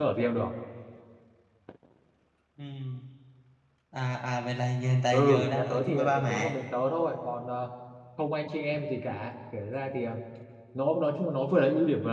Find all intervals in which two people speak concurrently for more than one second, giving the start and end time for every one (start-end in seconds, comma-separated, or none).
5.1-6.6